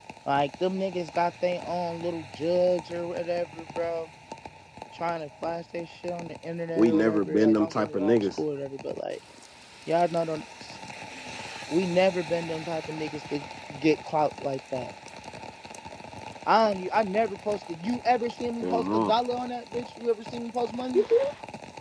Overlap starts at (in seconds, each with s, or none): 6.8 s